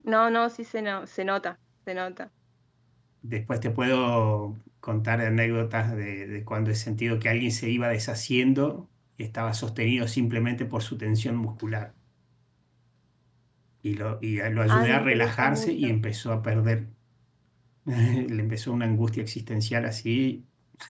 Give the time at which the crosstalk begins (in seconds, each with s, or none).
14.7 s